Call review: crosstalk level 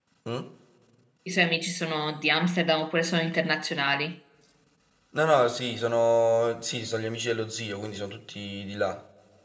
none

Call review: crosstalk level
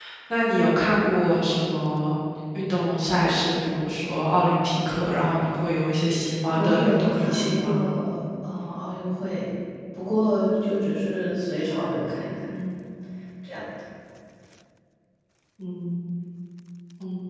present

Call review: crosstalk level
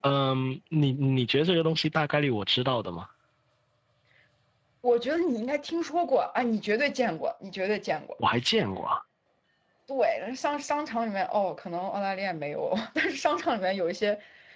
none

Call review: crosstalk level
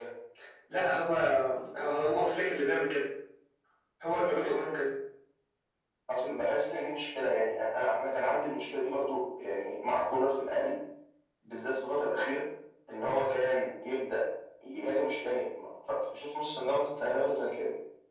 none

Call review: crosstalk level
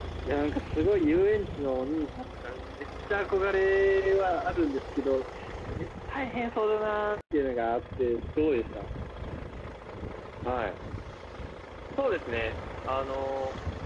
none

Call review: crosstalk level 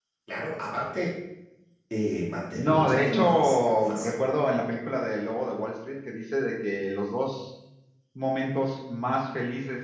present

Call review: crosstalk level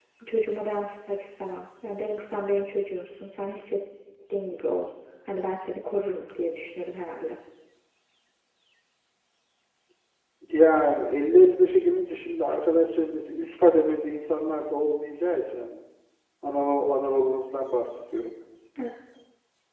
none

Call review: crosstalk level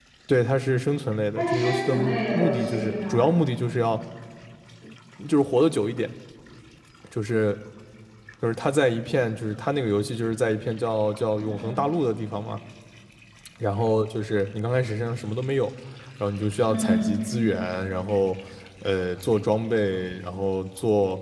present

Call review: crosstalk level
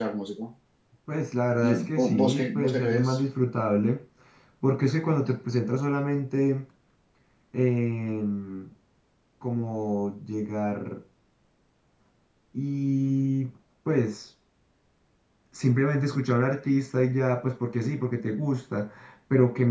present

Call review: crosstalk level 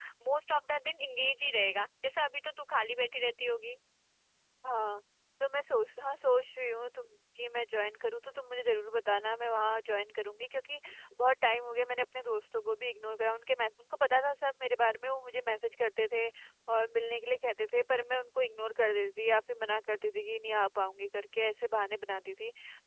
none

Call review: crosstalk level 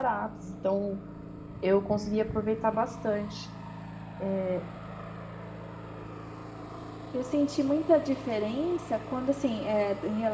none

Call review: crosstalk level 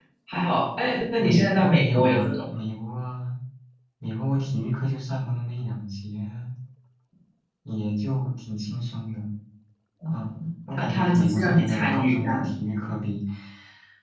present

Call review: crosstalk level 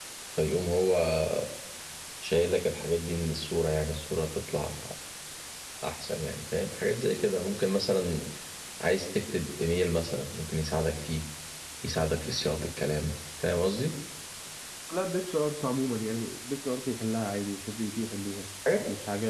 none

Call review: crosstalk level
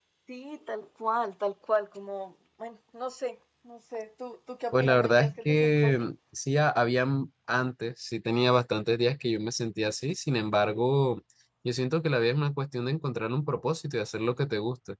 present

